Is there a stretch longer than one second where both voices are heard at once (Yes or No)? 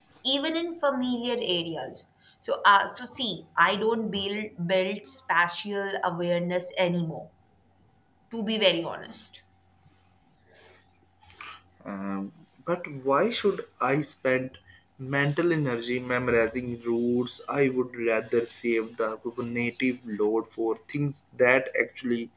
No